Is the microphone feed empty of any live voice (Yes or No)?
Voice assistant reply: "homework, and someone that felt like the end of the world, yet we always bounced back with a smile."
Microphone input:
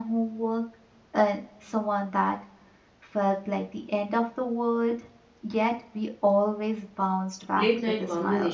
No